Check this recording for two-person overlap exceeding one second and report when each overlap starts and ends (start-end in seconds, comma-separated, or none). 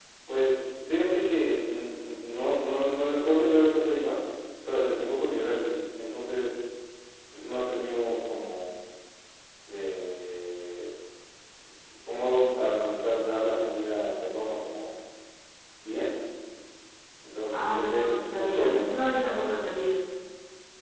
17.5-19.0